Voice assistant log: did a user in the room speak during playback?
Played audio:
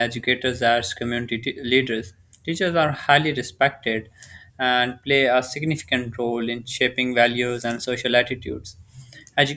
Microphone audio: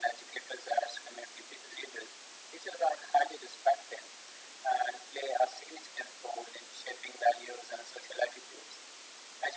No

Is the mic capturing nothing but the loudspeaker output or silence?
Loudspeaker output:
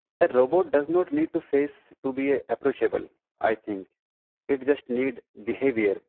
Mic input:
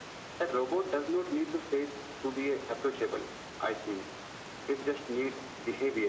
Yes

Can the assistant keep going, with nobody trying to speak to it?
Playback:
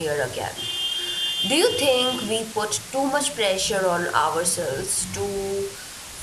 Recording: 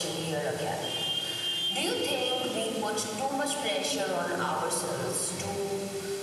Yes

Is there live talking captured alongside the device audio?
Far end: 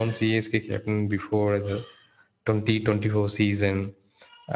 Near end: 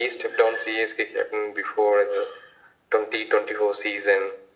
No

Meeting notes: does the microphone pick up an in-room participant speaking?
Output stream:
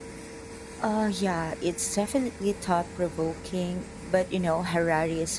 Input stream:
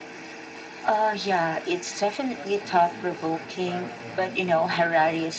Yes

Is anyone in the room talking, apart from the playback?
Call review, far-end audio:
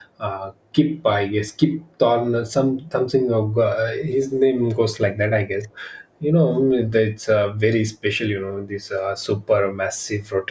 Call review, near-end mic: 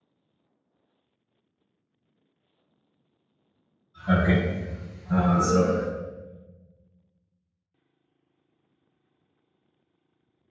Yes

